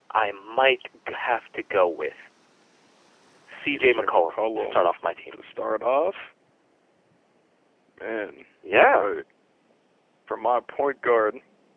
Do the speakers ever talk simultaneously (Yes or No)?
Yes